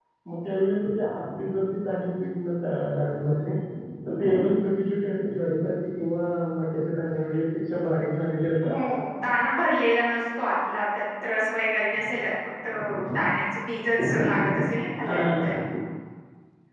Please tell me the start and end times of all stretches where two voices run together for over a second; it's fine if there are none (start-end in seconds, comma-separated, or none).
none